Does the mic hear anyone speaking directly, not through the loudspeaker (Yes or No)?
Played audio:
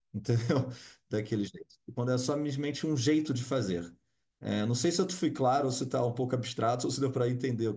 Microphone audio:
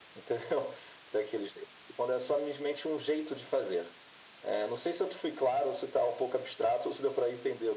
No